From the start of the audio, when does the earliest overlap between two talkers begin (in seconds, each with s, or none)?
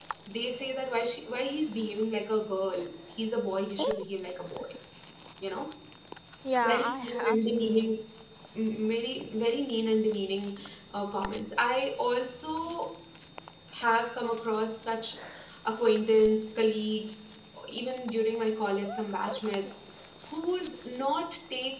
6.6 s